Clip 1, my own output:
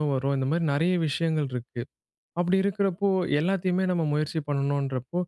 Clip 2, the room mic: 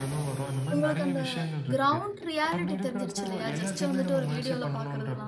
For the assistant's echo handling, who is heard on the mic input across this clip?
both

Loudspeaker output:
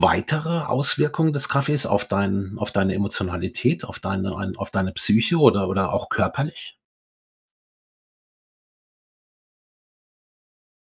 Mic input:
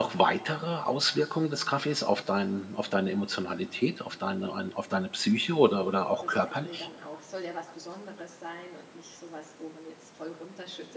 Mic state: both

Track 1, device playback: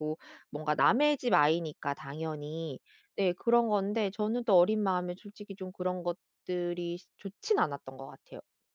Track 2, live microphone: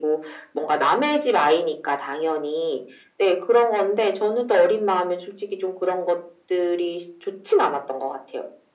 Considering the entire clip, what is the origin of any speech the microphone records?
echo only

